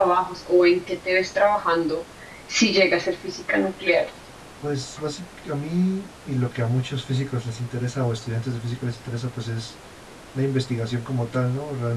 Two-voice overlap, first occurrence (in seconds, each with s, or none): none